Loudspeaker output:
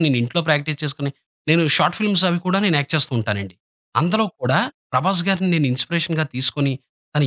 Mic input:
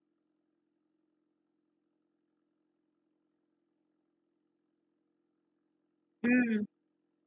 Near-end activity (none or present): present